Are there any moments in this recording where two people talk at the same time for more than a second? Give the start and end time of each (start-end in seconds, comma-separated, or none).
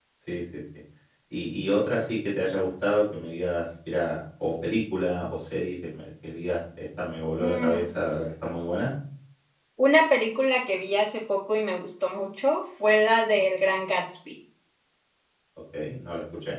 none